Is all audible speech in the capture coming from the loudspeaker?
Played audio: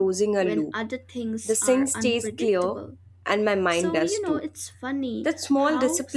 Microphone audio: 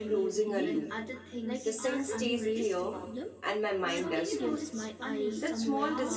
No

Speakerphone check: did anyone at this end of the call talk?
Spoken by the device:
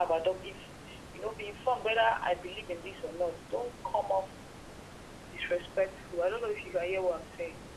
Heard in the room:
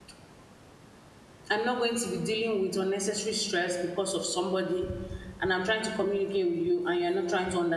Yes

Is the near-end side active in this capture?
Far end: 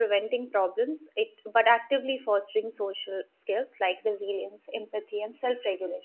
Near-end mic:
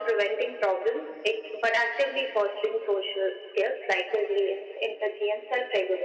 No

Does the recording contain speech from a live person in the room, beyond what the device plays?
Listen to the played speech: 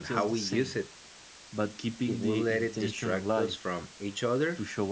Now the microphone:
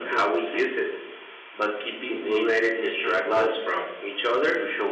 No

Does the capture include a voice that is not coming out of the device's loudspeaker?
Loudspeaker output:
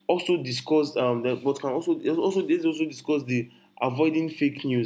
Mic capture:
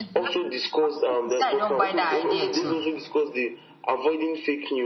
Yes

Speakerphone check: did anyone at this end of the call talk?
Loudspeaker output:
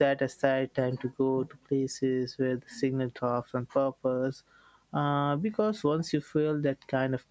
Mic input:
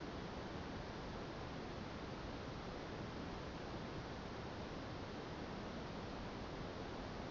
No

